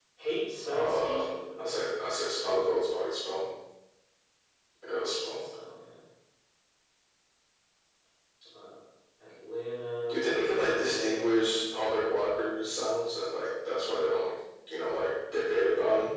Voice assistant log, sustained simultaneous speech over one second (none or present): present